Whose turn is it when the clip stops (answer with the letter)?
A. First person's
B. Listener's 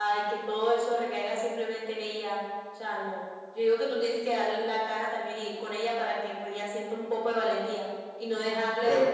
A